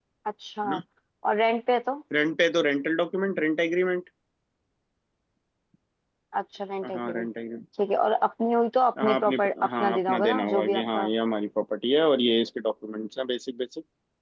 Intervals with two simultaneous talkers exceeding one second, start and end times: 9.0-11.1

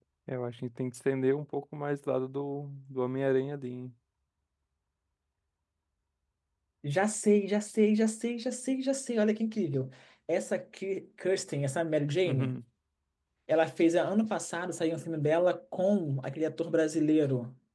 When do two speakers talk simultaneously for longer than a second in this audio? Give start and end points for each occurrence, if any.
none

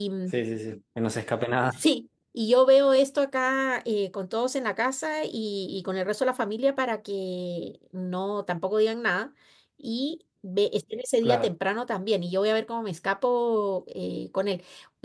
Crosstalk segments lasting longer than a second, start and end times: none

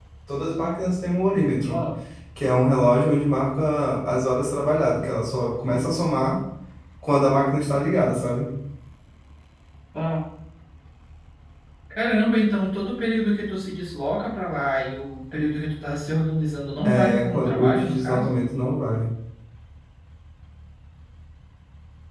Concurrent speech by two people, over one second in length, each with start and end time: 16.8-18.2

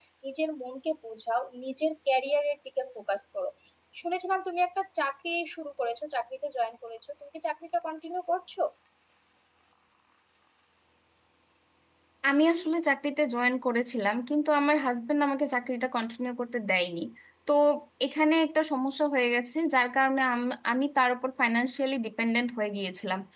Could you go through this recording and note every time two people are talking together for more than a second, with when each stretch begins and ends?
none

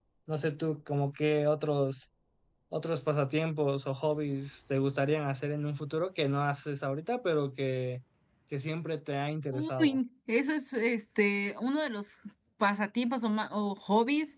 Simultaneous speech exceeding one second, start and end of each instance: none

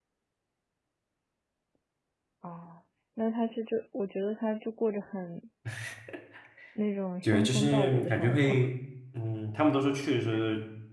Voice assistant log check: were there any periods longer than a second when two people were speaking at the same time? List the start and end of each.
7.2-8.6

